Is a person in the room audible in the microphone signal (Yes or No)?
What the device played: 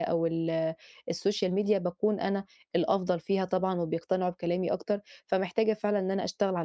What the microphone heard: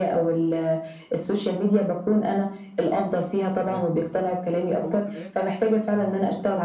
Yes